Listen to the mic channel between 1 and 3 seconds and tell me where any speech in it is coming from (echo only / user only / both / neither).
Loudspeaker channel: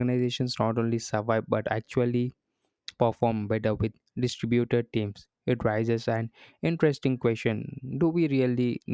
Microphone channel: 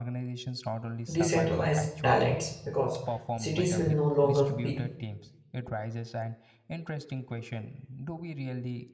both